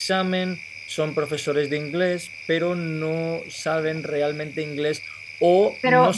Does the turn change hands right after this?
No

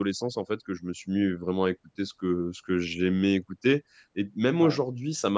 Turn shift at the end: No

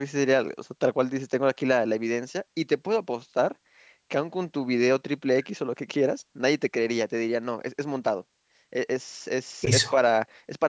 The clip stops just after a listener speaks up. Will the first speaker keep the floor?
Yes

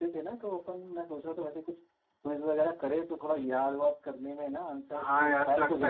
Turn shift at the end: Yes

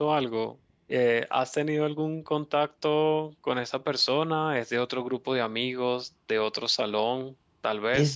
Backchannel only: Yes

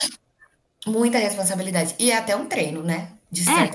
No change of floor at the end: Yes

